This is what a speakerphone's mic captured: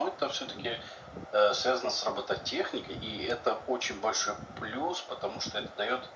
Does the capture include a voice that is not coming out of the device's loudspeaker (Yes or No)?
No